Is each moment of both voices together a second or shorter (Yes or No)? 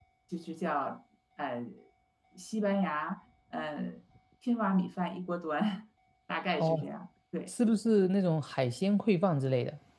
Yes